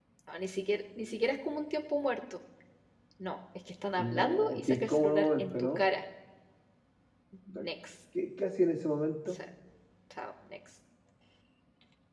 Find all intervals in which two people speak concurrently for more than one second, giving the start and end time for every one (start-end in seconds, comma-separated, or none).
4.0-5.8